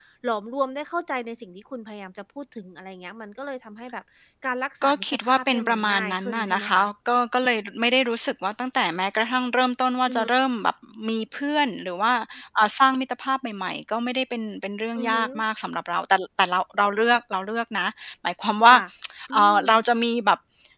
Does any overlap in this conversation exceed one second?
Yes, from 4.8 s

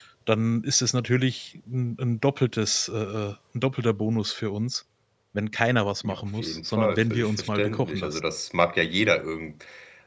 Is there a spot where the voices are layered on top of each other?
Yes, from 6.0 s

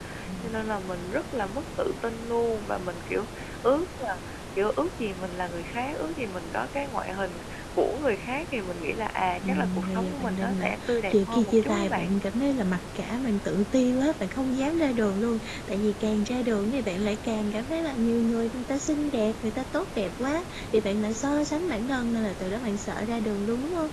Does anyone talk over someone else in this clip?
Yes, from 9.4 s

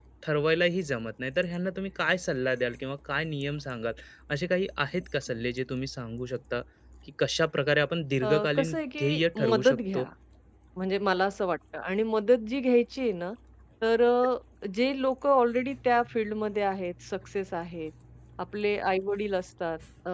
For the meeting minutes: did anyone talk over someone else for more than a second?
Yes, from 8.2 s

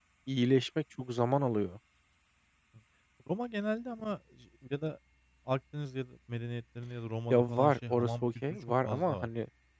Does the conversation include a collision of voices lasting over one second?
Yes, from 7.3 s

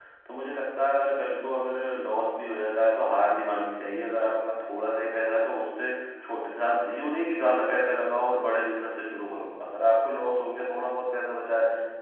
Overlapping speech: No

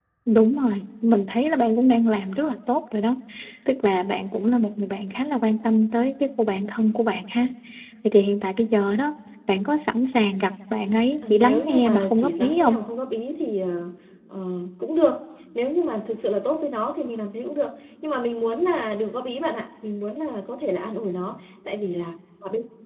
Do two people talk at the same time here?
Yes, from 11.2 s

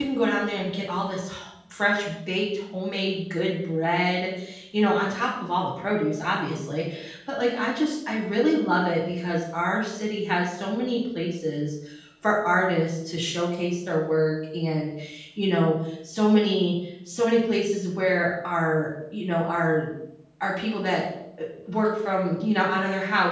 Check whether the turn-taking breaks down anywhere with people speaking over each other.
No

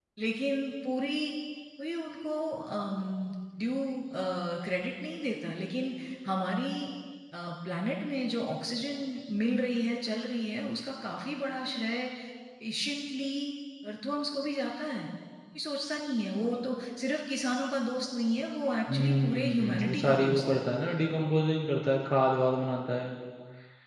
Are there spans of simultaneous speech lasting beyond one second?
Yes, from 18.9 s

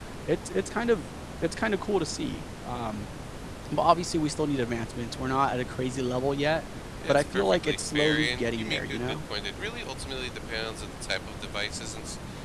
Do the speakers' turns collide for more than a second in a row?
Yes, from 7.1 s

